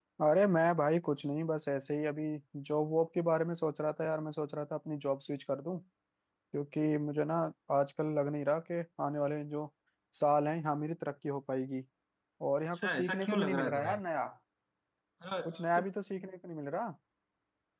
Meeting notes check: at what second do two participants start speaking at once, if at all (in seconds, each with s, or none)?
12.7 s